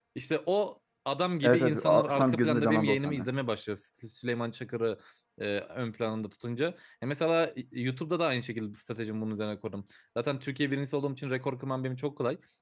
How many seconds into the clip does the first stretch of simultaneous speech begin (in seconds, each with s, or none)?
1.4 s